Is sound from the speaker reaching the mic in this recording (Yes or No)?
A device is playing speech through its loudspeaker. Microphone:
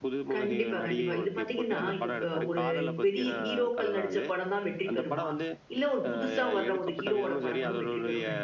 Yes